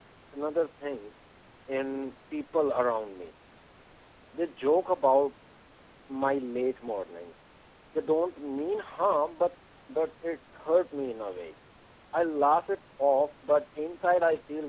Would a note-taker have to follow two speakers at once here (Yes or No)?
No